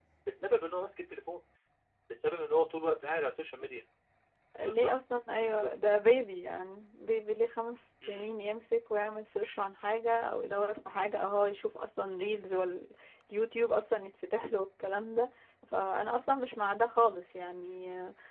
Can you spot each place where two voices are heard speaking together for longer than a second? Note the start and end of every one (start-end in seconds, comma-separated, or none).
none